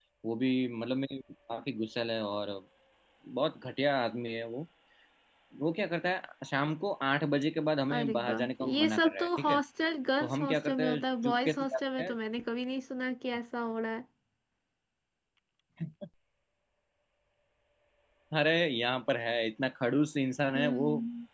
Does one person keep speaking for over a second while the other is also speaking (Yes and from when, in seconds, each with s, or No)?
Yes, from 8.0 s